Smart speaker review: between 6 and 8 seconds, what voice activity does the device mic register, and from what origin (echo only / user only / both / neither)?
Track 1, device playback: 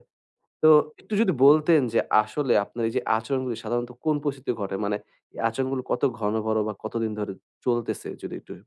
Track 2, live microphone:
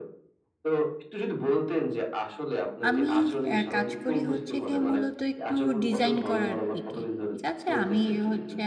both